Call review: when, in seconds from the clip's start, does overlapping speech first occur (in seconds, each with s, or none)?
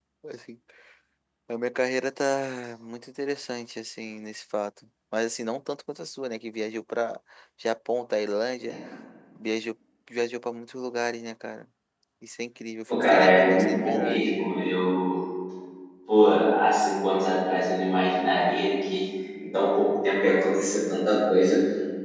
13.1 s